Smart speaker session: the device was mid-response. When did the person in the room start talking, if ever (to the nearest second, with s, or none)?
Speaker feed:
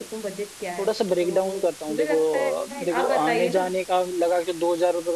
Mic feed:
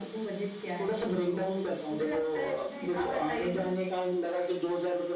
none